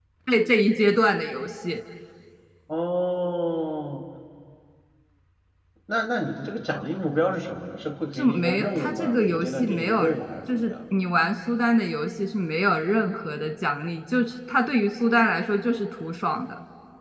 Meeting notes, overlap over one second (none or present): present